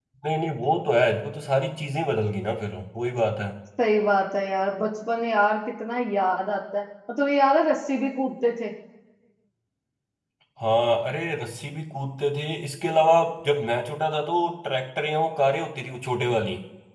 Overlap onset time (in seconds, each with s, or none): none